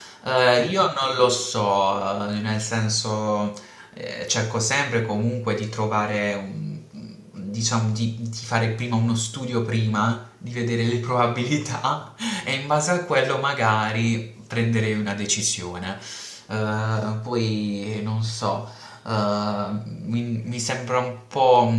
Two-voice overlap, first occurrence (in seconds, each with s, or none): none